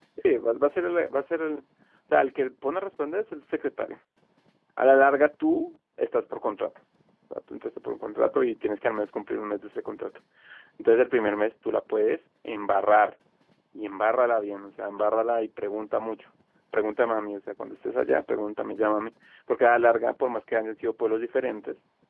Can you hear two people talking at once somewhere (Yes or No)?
No